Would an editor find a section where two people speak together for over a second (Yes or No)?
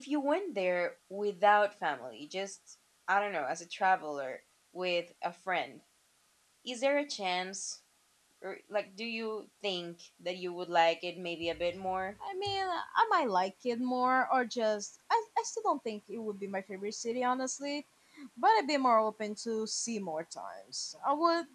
No